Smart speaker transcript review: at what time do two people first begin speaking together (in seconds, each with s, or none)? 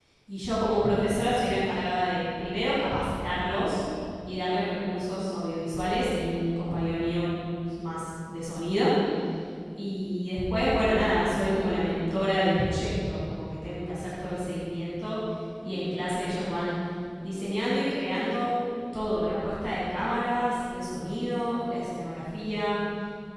none